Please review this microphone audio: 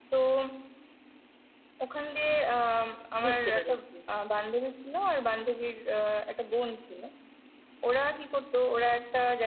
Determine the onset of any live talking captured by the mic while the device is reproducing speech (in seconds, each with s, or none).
3.2 s